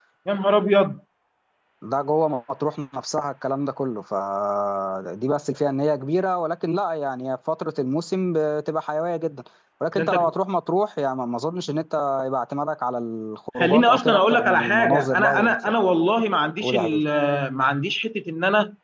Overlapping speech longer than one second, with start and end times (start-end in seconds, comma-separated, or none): 13.6-15.5